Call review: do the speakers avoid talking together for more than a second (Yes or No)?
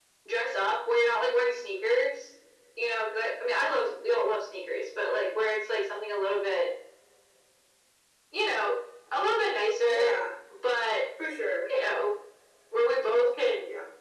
Yes